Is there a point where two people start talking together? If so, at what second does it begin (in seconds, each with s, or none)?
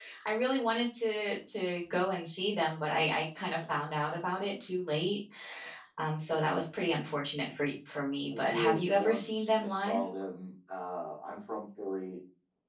8.3 s